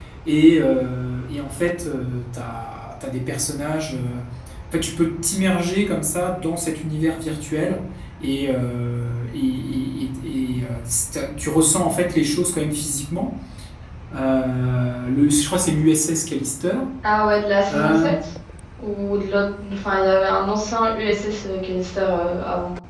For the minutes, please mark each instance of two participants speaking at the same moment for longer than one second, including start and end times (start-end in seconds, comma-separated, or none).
none